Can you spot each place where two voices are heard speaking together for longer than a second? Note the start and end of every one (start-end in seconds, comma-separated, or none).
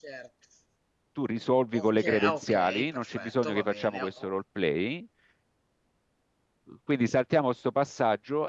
1.8-4.3